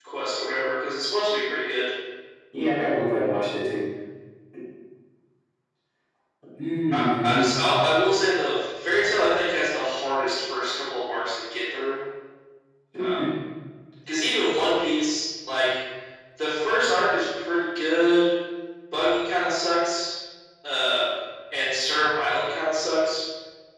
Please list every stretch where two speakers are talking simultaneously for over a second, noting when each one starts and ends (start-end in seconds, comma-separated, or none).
none